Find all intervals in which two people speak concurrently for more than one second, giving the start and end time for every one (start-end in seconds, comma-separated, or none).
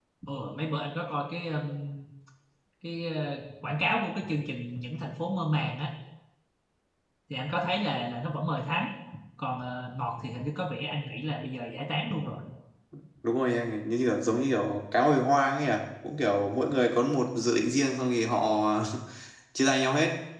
none